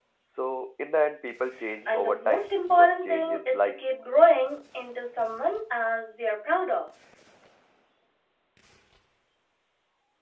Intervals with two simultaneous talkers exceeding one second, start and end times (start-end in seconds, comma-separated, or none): 1.9-3.8